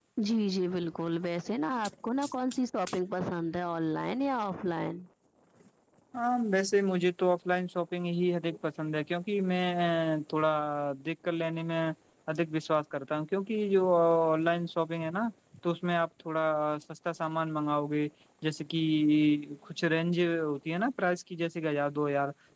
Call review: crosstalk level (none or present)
none